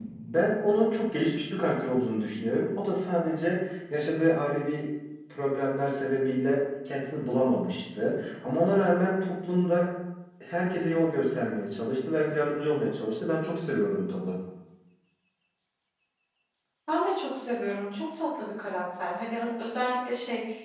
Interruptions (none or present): none